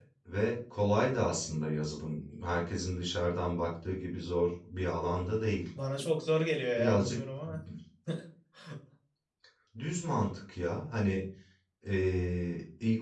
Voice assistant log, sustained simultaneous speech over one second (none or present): none